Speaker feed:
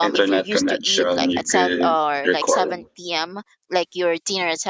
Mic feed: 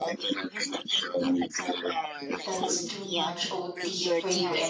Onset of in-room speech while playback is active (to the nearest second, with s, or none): 2 s